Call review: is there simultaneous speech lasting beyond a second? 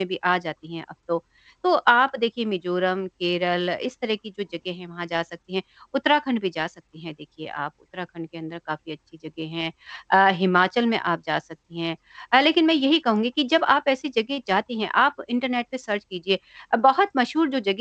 No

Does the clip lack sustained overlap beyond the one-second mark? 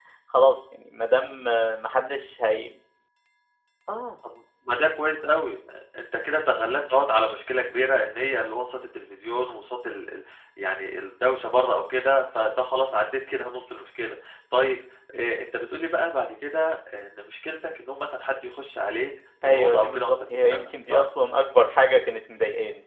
No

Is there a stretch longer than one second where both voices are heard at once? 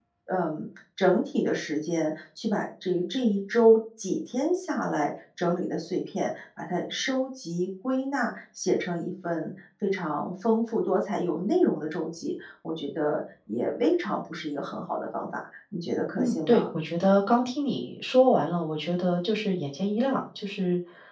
No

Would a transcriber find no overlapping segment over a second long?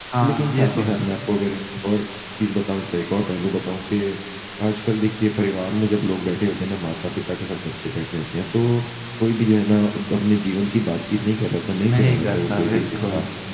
No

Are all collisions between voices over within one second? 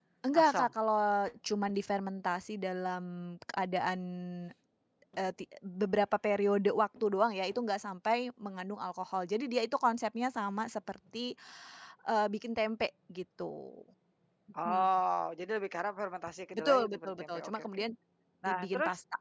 No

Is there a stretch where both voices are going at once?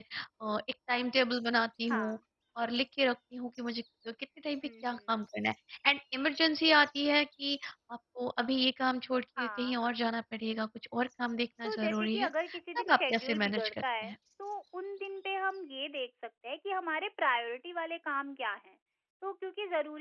Yes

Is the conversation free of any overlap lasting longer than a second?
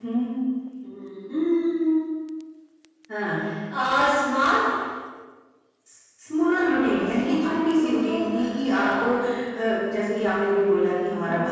No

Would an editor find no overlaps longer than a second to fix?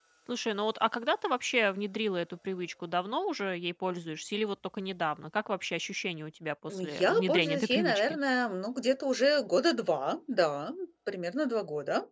No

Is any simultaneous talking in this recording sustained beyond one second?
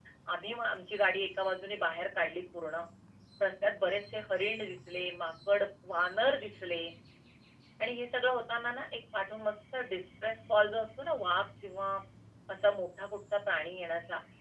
No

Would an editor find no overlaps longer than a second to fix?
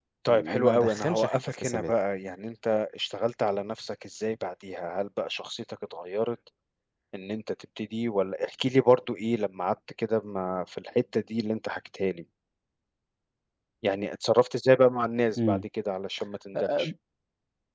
No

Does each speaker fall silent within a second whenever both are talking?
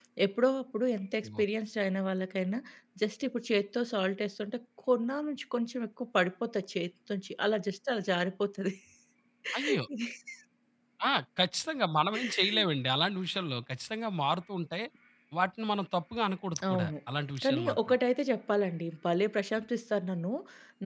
Yes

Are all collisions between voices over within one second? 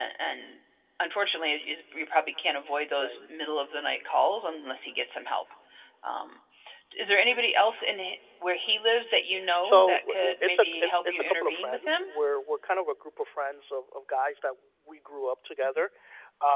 No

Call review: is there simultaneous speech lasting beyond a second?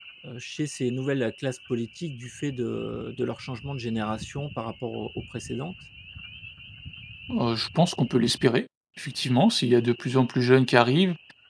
No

